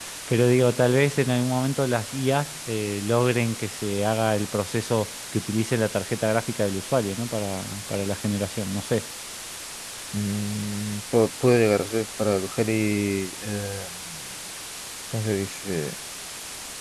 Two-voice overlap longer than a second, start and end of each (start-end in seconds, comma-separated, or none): none